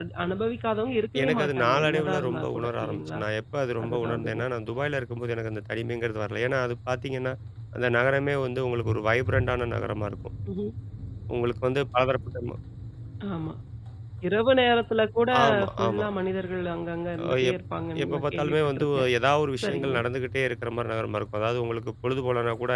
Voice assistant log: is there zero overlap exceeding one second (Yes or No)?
No